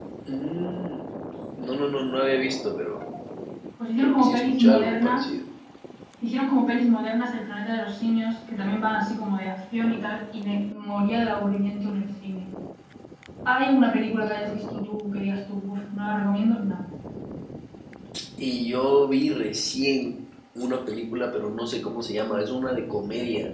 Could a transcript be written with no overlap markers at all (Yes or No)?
No